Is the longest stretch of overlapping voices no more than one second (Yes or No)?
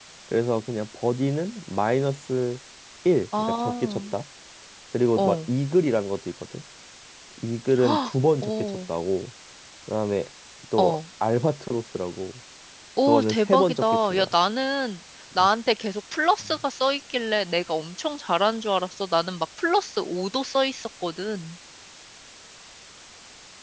No